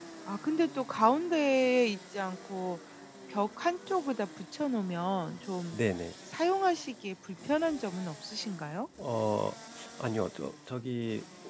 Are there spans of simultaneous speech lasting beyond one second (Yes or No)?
No